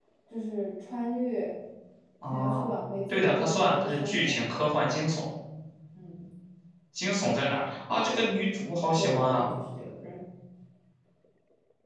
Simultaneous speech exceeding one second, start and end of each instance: 3.1-4.5

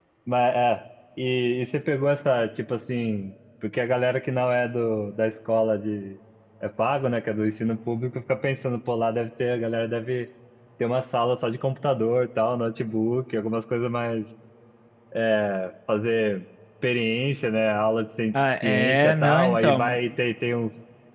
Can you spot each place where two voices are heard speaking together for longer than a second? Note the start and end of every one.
18.6-20.0

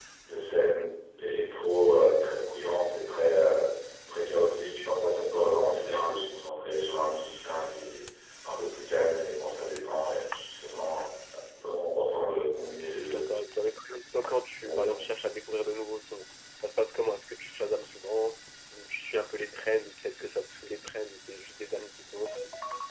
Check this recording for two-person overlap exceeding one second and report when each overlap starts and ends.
none

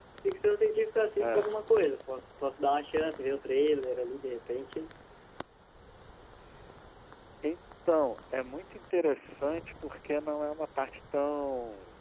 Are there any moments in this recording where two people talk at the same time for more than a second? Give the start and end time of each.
none

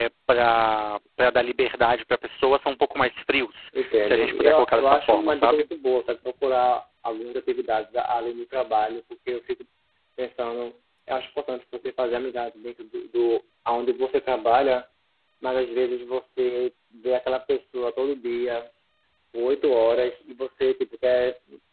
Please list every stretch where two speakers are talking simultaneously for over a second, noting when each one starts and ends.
3.8-5.7

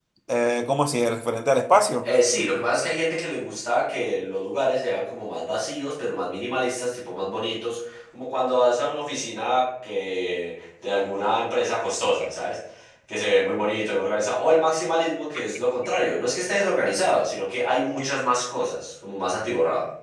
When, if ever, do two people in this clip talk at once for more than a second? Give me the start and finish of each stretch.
none

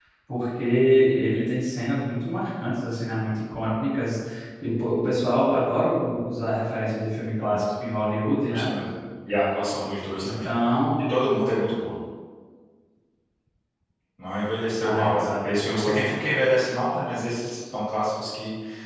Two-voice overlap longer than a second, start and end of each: 14.8-16.0

